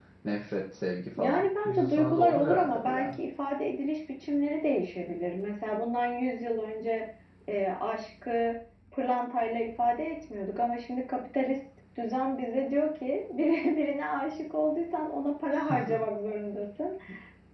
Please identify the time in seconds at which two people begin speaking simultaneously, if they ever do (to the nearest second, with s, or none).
1 s